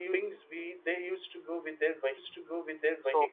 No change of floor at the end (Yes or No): No